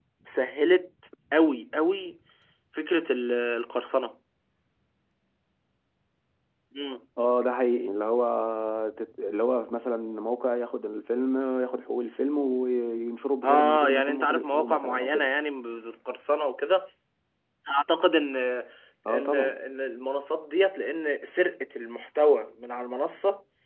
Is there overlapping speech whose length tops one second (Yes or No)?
Yes